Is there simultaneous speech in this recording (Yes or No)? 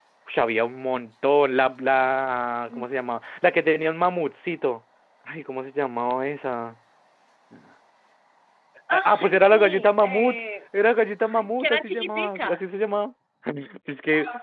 Yes